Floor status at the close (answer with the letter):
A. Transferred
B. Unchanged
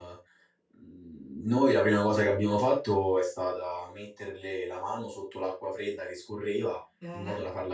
B